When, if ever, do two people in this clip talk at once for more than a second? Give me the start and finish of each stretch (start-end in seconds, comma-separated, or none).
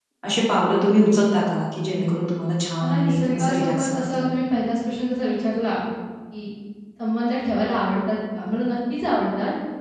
2.8-4.2